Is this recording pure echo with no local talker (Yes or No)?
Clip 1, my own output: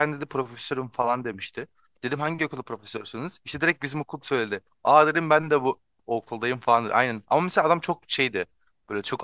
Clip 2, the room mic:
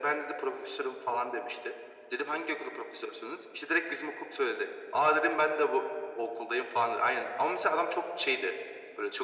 Yes